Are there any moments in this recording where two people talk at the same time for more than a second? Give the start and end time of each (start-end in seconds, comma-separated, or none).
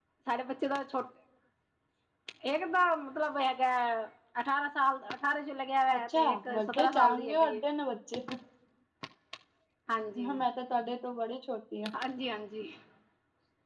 6.0-7.6